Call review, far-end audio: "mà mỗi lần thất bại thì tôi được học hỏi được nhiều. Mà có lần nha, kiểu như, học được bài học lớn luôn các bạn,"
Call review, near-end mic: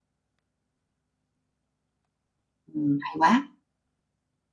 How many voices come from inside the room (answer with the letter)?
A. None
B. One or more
B